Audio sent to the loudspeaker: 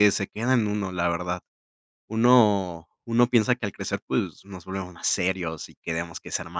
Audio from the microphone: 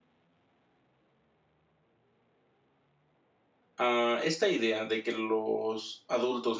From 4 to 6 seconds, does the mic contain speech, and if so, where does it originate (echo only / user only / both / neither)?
user only